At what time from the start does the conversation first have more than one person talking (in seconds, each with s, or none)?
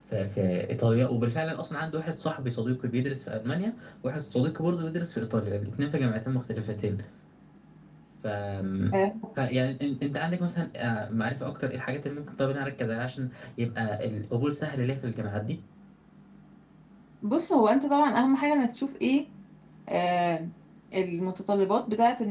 none